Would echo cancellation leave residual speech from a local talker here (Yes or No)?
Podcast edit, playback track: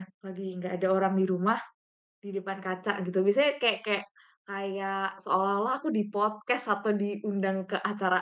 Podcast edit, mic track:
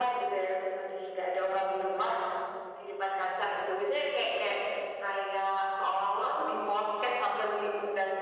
No